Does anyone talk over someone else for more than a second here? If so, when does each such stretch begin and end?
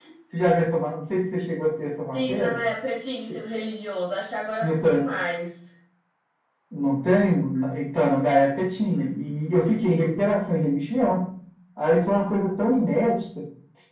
none

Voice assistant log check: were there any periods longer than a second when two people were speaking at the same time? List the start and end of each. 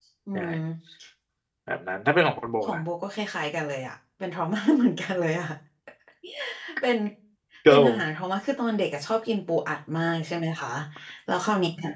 none

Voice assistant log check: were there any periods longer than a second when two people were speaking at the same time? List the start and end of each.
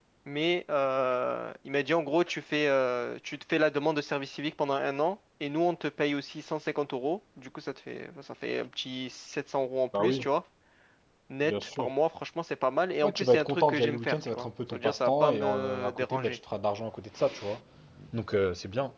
13.0-16.4

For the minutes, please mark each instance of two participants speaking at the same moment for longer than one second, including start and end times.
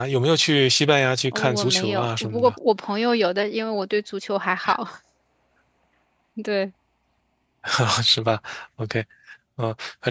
1.3-2.5

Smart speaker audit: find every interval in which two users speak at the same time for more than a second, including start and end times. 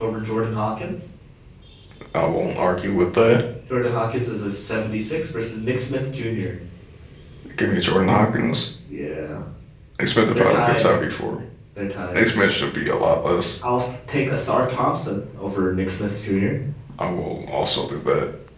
none

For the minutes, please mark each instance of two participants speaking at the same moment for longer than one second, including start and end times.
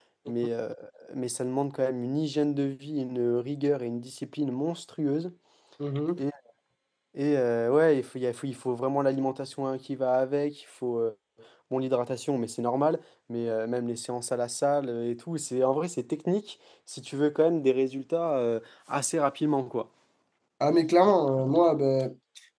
none

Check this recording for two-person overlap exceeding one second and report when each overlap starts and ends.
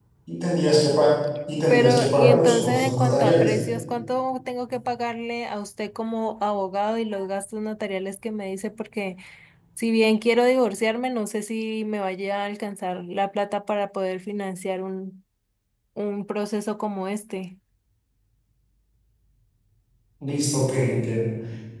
1.7-3.5

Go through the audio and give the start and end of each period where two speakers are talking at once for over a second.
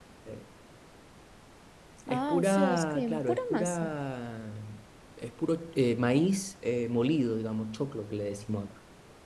2.1-3.9

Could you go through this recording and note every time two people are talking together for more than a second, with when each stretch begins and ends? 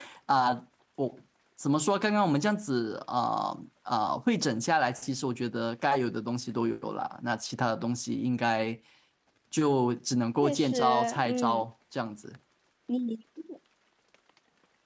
10.4-11.6

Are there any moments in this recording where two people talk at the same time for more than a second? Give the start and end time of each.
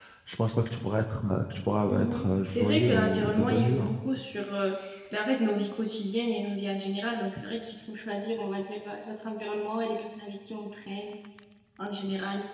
1.9-3.9

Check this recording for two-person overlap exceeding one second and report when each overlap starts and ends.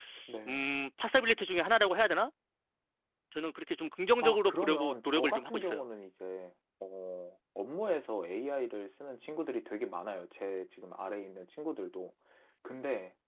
4.2-5.8

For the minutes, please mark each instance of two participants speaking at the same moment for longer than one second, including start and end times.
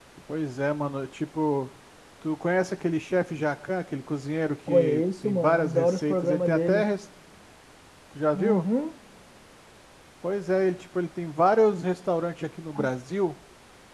4.7-6.8

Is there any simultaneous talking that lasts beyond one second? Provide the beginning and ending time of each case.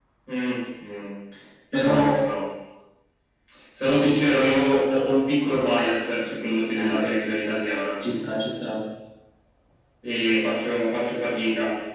none

